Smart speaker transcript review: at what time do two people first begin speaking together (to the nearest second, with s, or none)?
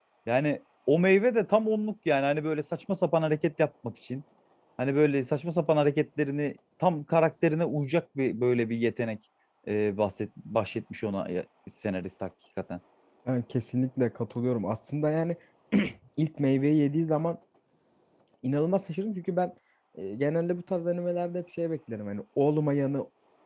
none